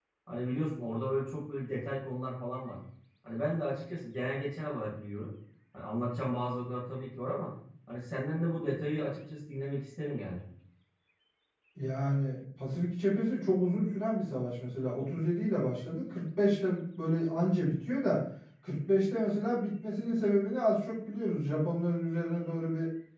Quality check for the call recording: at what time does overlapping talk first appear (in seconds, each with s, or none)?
none